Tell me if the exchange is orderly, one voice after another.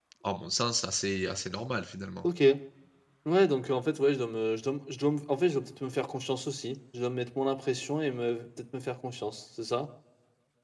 Yes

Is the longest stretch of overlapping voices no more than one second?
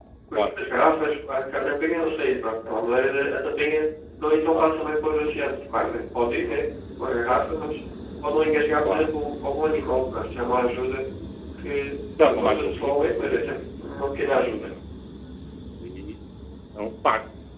No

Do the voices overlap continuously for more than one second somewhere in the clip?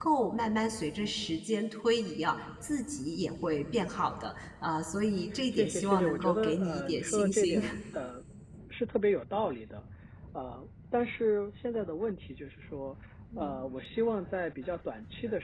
Yes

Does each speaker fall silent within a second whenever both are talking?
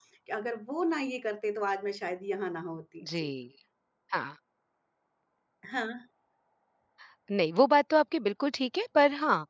Yes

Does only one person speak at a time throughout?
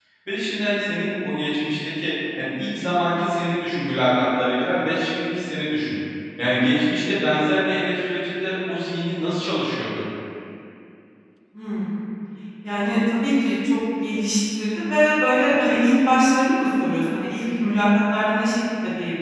Yes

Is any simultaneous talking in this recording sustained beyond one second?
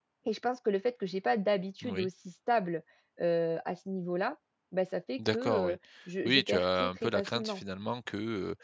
Yes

